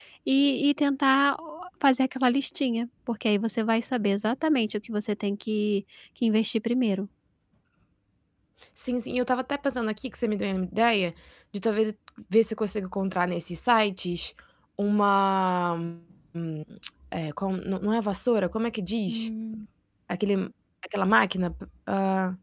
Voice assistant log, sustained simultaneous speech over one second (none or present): none